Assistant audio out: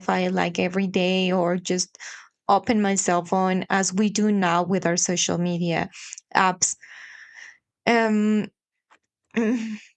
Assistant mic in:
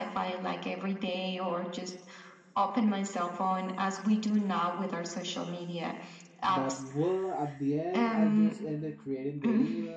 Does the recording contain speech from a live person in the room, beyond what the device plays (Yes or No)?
Yes